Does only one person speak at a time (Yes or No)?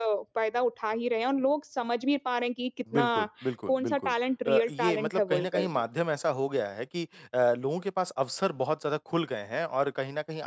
No